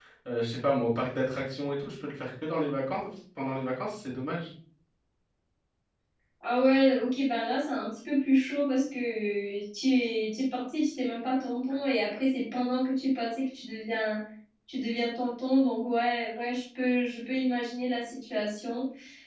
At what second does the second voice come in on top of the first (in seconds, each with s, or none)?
none